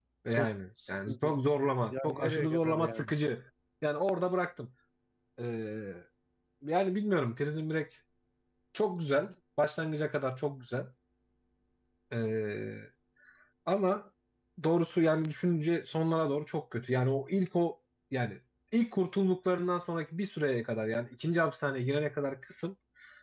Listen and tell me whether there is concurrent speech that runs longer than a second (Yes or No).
Yes